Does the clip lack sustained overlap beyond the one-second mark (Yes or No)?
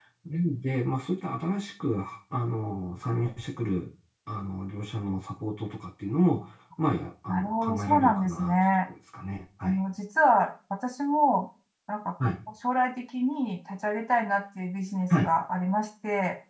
No